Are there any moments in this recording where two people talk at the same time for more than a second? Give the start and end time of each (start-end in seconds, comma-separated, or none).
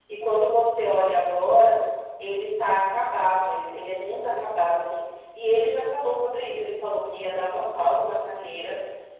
none